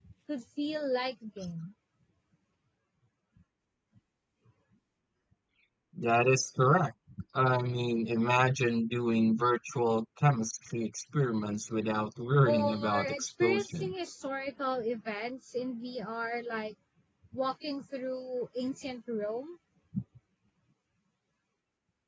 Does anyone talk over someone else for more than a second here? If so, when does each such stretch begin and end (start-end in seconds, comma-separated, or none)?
12.4-13.9